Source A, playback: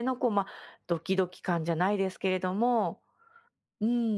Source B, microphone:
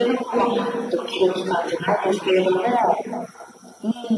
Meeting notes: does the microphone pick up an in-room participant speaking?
Yes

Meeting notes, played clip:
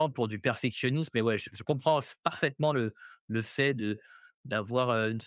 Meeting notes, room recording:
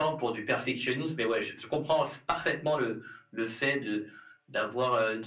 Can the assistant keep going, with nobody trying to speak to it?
Yes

